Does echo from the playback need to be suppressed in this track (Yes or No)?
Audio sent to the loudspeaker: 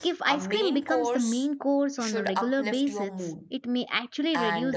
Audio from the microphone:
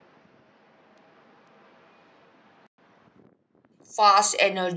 No